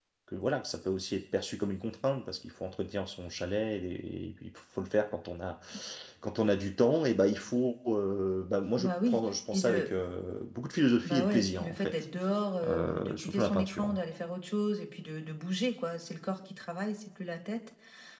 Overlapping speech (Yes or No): Yes